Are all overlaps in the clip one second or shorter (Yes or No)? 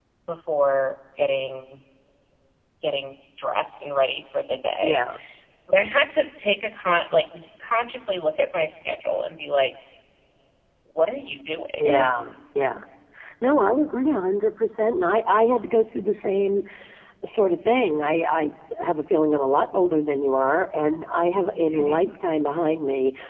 Yes